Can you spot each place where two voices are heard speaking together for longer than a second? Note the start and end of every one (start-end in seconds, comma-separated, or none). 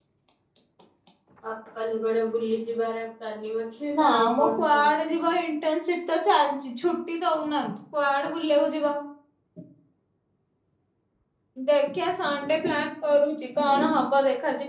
4.0-5.3